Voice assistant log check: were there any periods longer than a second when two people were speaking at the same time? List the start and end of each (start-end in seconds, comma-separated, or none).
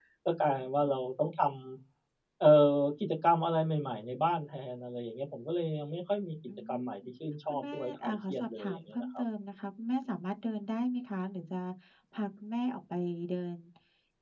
7.5-9.2